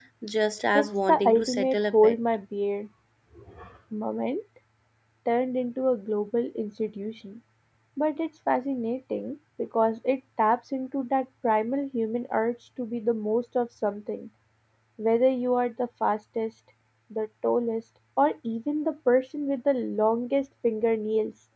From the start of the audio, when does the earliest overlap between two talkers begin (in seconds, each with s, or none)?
0.7 s